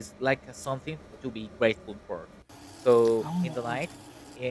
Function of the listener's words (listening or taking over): listening